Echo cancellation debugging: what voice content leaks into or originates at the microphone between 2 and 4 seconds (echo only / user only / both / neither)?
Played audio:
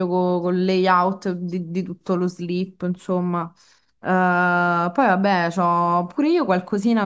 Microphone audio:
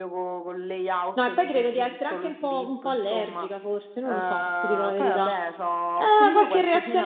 both